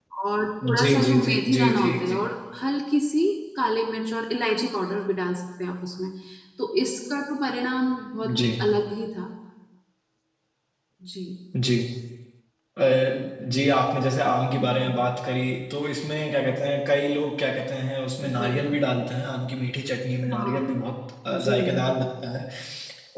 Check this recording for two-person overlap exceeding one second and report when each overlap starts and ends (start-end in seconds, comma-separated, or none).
0.8-2.2